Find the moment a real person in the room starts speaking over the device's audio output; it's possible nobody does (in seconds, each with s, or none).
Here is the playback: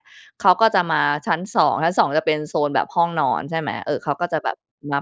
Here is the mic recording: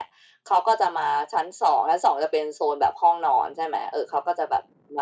none